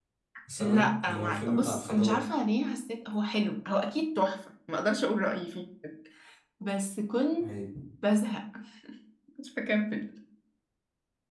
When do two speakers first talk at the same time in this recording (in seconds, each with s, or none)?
0.6 s